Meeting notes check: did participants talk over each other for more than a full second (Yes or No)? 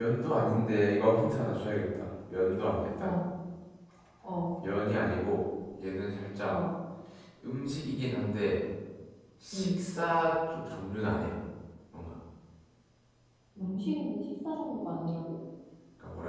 No